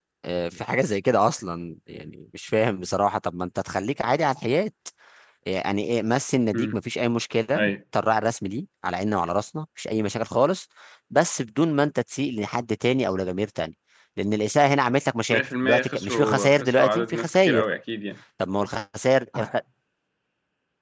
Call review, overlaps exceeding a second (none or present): present